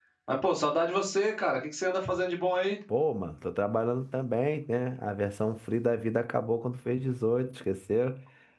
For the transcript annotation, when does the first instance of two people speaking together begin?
none

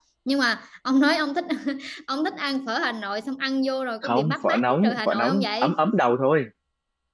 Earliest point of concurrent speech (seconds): 4.0 s

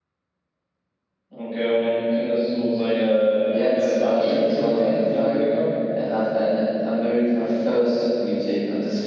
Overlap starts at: 3.7 s

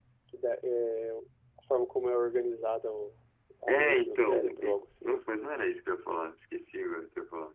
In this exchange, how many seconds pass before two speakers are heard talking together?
3.7 s

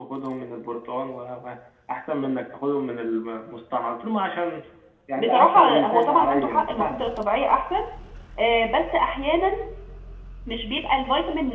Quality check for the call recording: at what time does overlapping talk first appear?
5.2 s

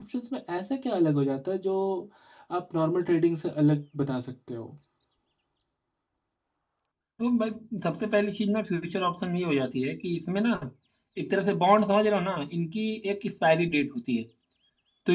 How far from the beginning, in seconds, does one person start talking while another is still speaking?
none

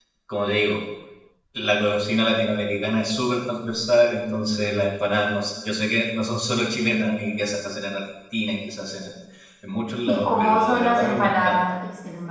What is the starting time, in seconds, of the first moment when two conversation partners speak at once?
10.1 s

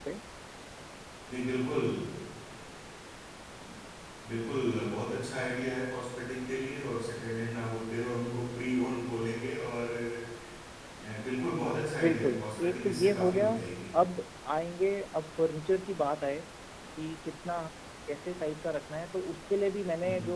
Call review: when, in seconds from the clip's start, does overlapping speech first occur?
12.0 s

